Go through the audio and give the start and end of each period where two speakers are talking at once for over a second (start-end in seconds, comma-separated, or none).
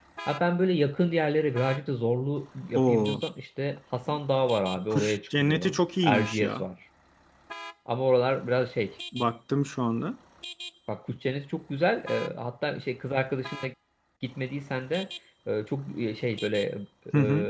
4.9-6.6